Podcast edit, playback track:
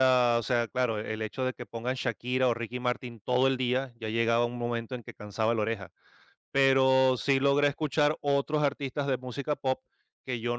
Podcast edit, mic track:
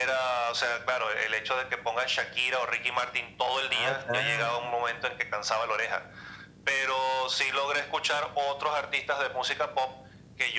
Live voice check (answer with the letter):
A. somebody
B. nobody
A